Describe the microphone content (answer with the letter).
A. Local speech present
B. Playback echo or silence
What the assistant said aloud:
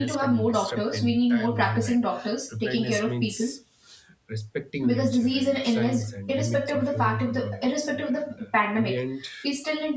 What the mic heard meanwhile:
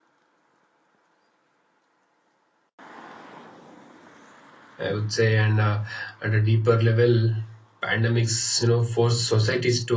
A